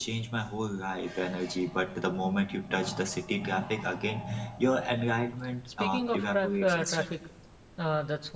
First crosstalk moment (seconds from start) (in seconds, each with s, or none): 5.8 s